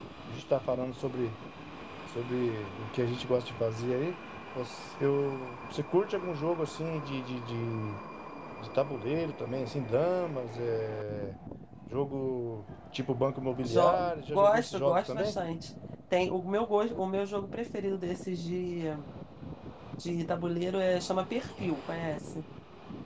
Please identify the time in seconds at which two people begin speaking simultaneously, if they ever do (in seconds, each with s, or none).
13.6 s